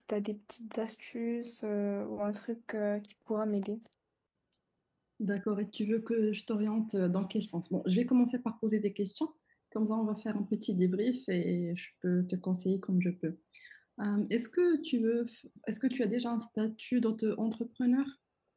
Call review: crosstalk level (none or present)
none